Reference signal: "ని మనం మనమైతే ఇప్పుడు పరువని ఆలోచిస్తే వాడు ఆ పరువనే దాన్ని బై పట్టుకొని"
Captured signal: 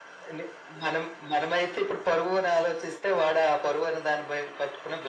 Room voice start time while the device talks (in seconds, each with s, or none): none